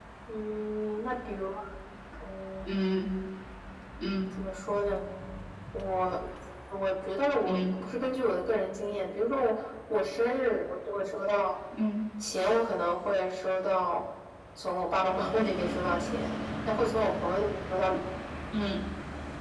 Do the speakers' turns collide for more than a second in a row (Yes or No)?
No